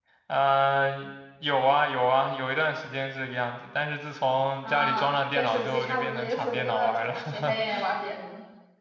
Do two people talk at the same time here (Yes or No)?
Yes